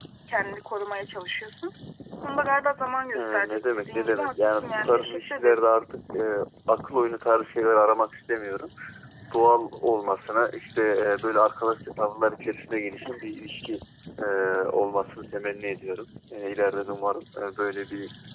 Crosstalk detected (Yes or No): Yes